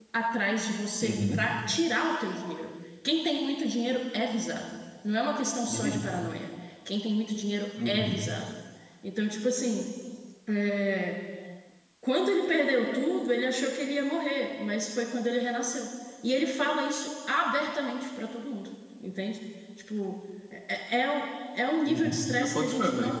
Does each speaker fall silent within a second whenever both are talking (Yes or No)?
No